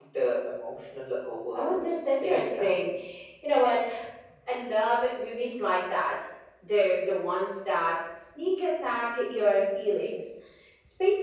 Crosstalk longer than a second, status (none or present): present